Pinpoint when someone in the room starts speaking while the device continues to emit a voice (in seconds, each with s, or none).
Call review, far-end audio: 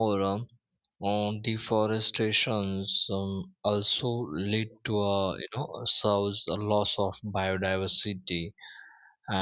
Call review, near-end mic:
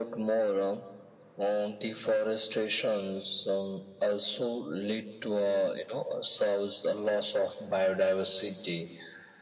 none